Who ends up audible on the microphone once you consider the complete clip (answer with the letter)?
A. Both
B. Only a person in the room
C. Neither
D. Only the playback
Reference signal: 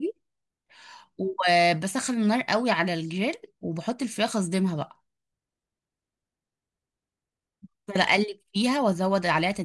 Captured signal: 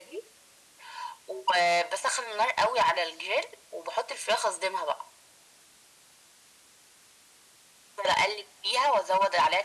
D